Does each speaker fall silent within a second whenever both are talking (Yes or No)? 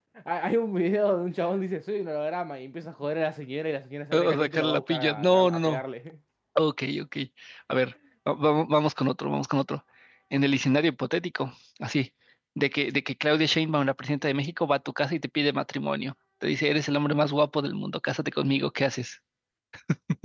No